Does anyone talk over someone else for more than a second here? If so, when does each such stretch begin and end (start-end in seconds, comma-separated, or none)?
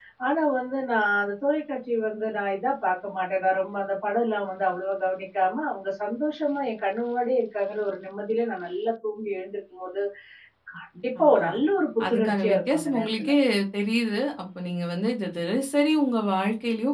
12.1-13.3